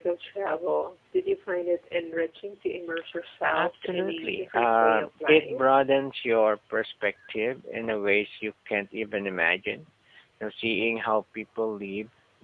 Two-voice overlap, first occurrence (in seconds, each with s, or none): 3.5 s